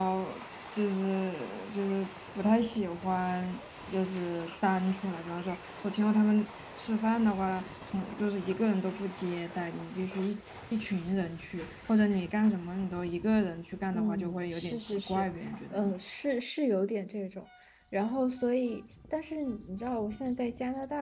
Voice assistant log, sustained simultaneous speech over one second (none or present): present